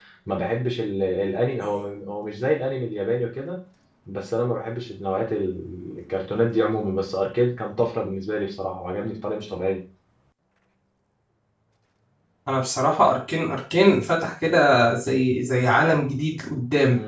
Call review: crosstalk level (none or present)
none